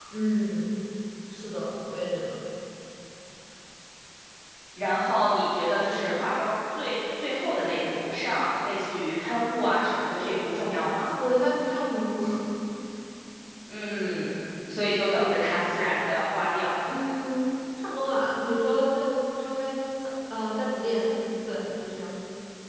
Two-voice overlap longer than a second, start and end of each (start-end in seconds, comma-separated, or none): none